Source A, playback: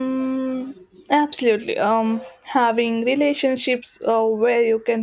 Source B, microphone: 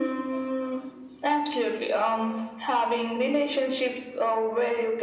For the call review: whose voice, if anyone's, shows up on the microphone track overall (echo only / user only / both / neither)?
echo only